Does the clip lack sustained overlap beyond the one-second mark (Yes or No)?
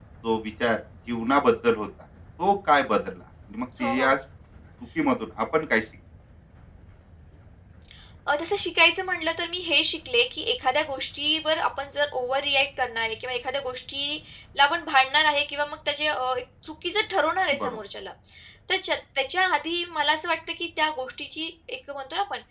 Yes